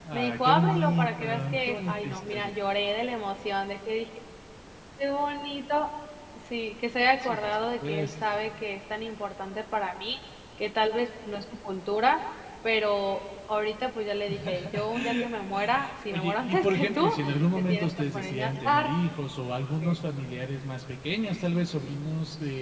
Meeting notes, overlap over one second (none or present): present